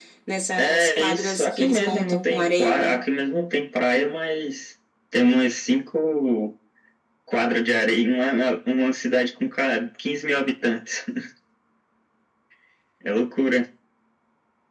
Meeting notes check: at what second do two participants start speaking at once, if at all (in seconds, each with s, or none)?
0.6 s